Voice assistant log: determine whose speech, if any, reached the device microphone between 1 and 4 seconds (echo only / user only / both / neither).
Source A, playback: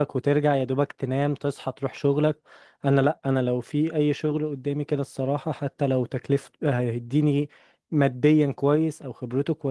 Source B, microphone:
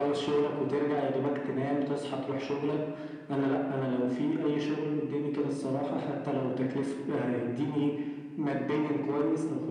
echo only